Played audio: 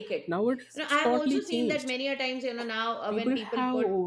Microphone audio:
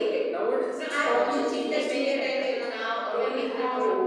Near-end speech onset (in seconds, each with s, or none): 1.1 s